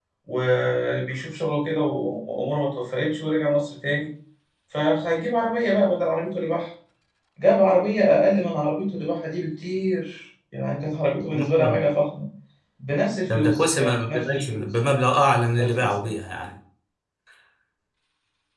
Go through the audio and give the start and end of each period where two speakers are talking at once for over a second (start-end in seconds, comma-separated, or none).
13.3-14.7